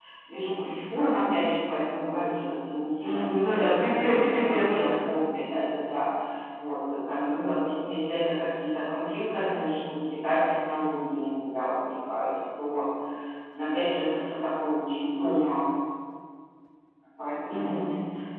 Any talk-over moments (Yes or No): Yes